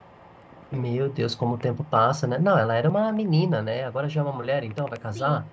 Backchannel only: No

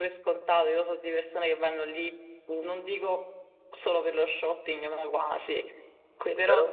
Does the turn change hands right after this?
No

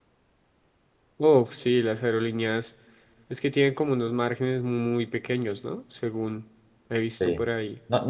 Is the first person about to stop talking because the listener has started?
Yes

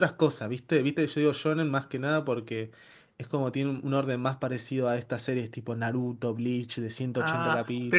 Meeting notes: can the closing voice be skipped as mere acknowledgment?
No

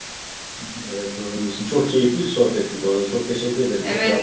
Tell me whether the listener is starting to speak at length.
Yes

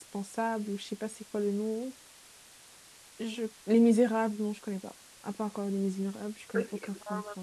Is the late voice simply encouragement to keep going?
No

